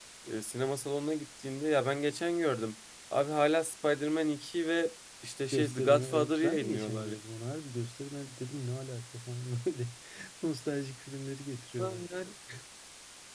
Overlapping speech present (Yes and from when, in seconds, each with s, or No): Yes, from 5.5 s